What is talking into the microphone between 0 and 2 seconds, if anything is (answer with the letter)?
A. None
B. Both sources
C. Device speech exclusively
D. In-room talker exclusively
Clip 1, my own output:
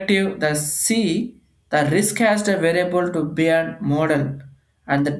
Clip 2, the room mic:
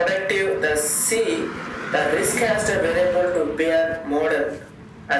C